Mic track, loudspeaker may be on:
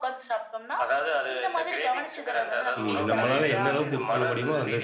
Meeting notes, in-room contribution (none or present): present